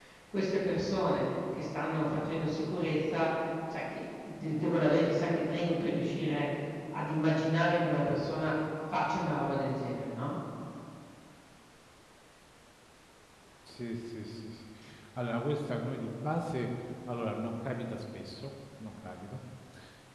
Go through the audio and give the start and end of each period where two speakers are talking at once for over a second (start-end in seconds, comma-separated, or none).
none